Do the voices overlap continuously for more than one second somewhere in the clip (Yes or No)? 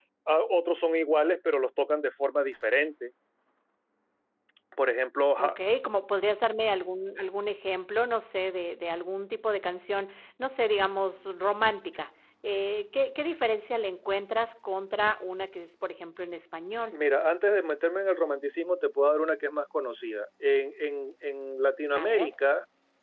No